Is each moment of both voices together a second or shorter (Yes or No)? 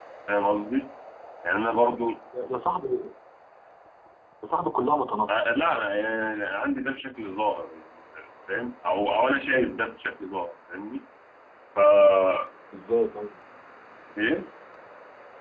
Yes